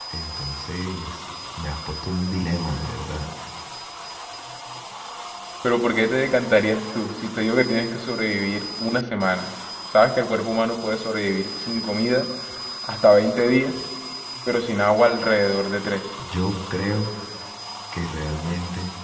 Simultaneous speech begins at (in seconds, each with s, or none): none